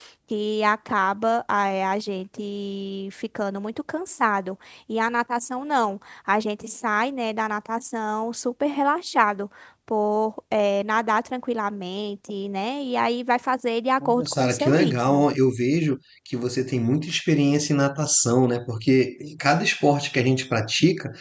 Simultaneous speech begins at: 14.0 s

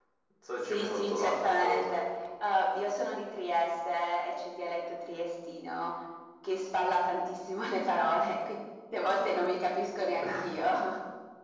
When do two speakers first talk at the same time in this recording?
0.6 s

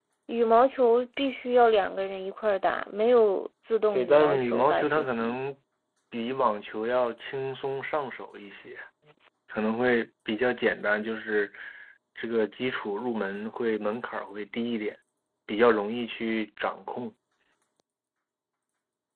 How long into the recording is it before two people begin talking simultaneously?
3.9 s

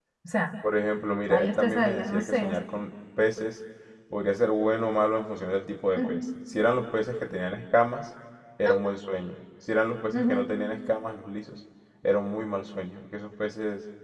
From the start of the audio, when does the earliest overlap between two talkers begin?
1.3 s

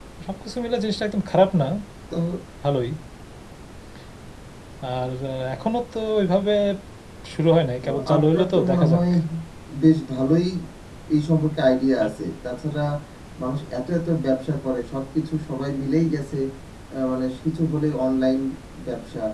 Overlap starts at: 7.8 s

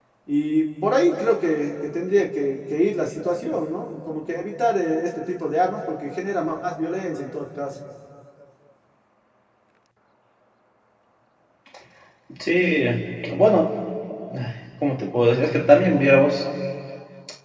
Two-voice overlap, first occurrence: none

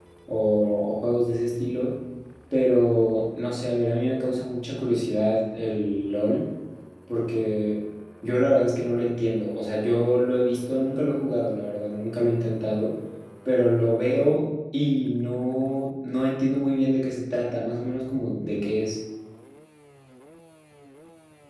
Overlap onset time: none

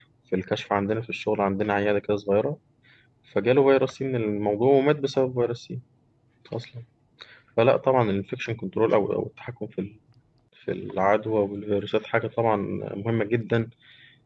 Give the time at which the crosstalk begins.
none

